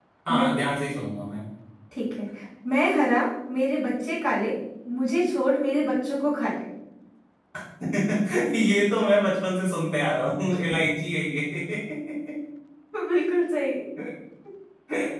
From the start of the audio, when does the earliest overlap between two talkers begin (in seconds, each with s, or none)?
none